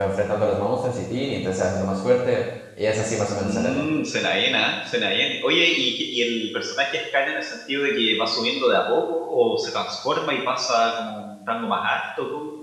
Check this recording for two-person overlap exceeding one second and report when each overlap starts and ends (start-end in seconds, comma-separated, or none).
none